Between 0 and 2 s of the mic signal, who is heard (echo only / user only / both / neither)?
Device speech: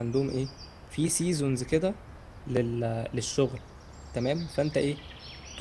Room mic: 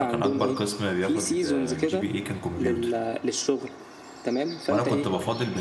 both